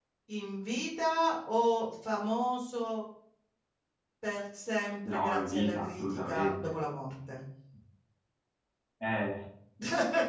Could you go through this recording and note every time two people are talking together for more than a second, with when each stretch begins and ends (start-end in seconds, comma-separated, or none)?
5.1-6.8